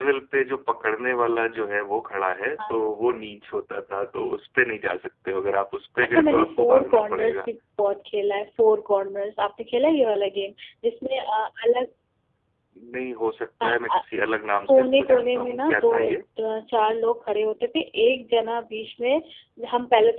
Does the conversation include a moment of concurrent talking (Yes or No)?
Yes